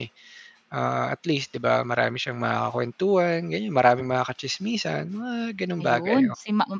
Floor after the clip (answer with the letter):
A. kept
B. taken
B